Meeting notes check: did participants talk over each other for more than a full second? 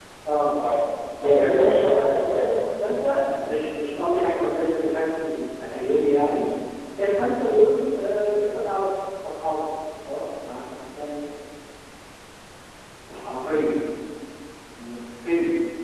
Yes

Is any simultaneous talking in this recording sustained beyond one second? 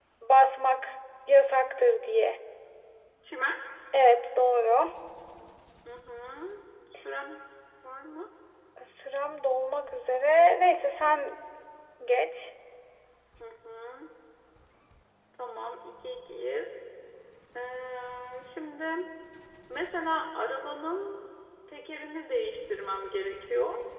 No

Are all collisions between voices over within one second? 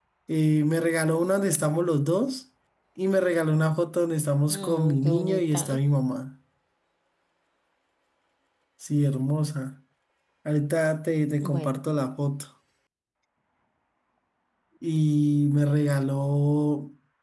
No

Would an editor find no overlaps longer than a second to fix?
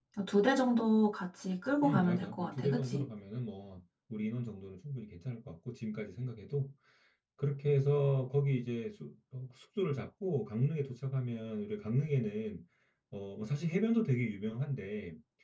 No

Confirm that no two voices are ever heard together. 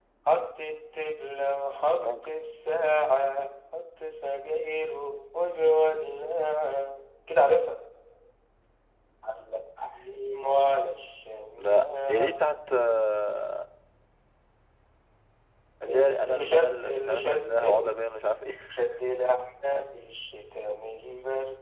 No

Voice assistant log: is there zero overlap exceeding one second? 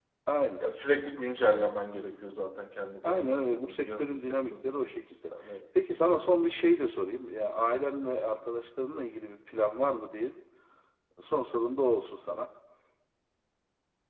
No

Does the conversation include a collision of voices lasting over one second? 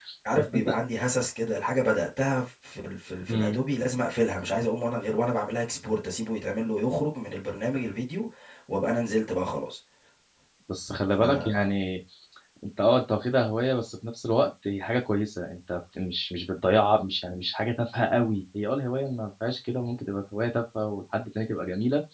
No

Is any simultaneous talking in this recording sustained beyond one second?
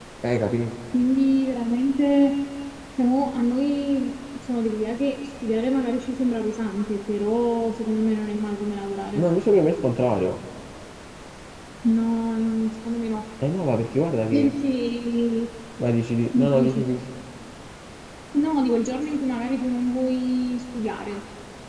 No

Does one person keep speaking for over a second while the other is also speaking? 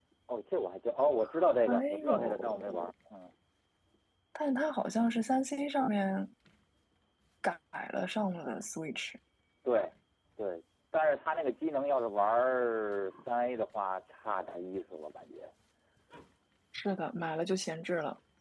Yes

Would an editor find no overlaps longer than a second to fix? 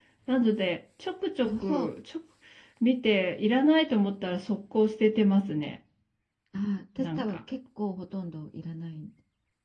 Yes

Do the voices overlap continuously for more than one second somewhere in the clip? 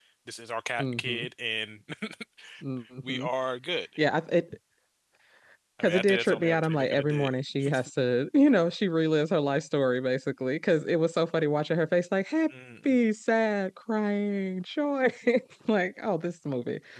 Yes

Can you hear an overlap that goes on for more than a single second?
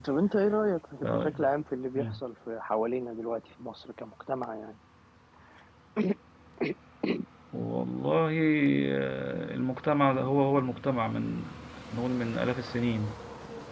No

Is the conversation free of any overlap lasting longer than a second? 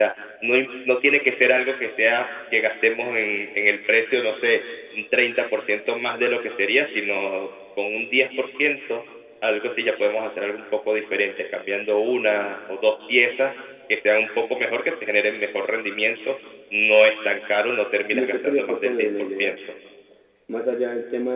No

